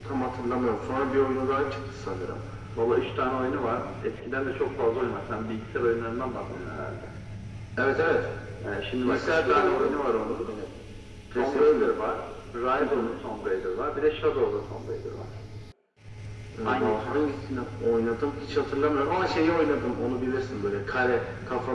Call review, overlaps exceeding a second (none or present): present